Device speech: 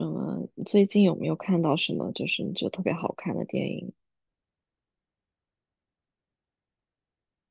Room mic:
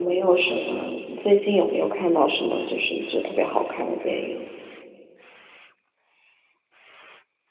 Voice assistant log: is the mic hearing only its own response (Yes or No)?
Yes